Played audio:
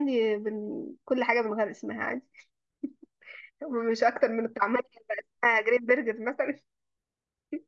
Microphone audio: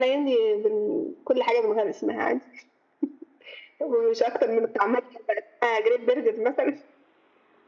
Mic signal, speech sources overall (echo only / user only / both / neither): echo only